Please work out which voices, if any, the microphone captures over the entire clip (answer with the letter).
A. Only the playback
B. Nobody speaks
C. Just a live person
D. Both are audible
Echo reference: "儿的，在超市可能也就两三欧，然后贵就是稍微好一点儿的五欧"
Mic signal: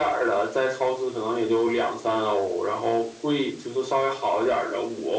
A